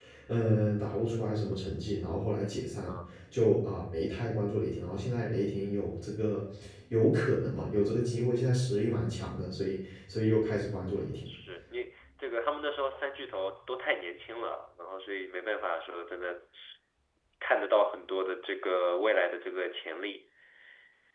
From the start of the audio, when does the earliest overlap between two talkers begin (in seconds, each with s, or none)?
none